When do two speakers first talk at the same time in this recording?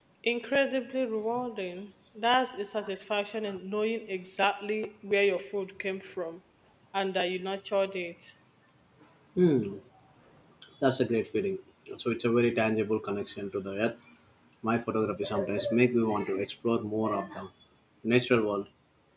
none

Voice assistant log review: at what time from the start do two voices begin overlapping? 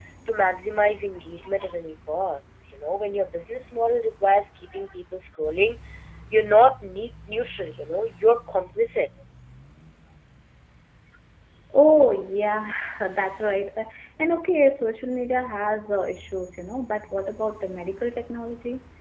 none

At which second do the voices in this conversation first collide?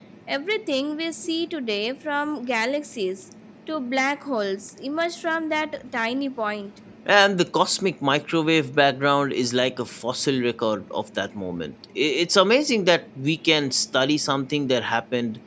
none

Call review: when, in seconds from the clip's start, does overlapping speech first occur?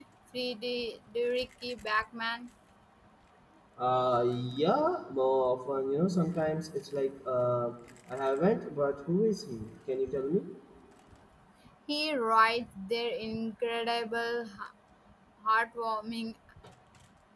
none

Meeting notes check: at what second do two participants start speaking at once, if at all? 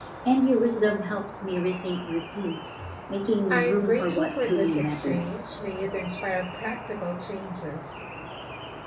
4 s

